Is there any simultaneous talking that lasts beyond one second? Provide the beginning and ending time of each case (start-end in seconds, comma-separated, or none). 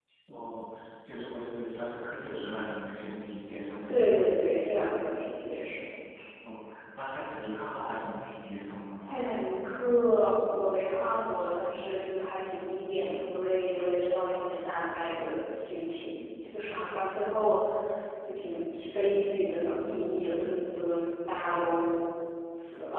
none